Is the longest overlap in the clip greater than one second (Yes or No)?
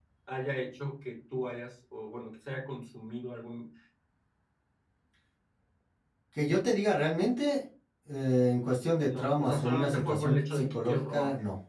Yes